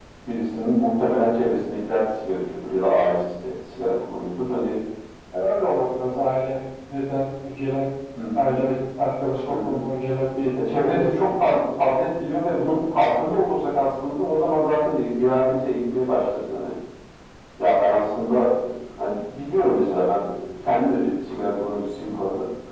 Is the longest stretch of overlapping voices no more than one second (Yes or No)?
Yes